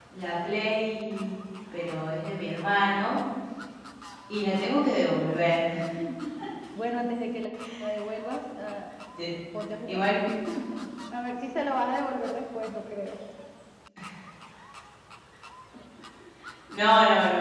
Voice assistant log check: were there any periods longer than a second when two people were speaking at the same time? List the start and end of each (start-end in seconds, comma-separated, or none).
none